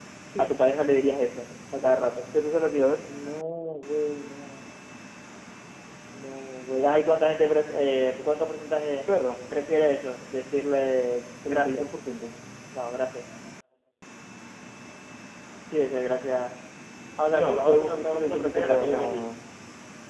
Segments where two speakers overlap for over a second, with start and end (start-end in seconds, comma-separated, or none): 17.3-19.2